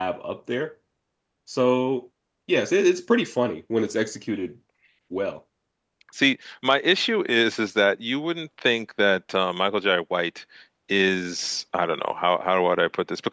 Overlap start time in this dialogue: none

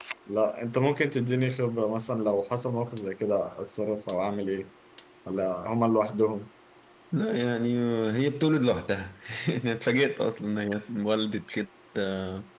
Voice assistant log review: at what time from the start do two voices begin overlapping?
none

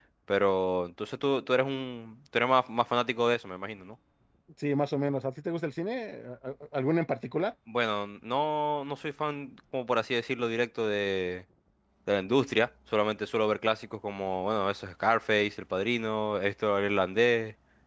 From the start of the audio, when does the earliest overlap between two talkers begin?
none

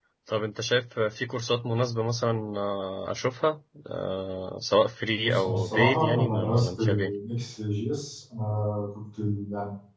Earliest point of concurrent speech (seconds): 5 s

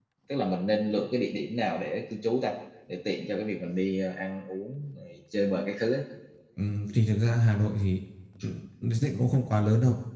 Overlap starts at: none

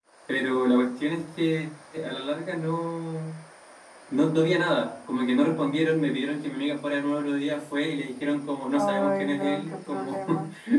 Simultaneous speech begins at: 9 s

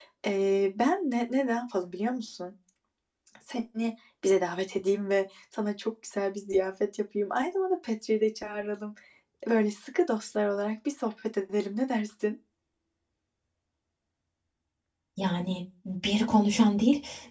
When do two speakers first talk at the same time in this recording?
none

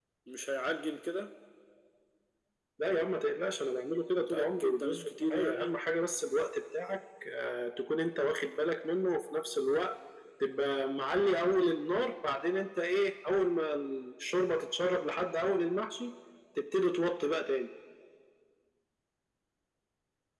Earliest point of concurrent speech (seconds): 4 s

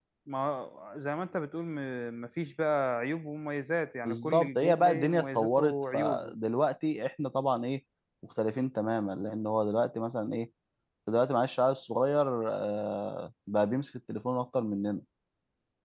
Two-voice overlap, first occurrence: 4 s

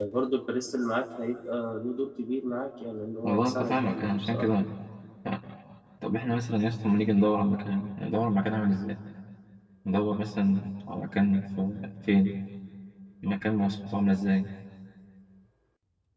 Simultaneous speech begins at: 3 s

